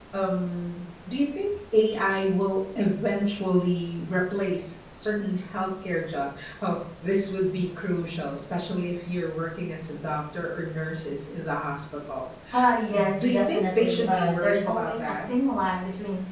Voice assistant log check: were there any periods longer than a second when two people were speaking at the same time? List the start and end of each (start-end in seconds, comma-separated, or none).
13.2-15.3